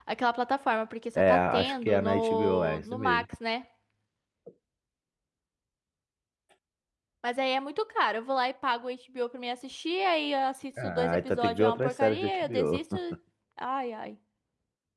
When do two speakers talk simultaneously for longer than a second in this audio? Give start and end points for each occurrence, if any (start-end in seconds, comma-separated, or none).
1.2-3.2, 10.8-12.8